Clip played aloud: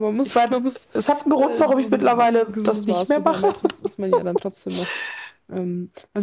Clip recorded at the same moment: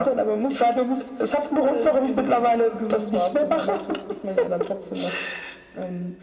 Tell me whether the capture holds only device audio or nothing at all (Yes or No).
Yes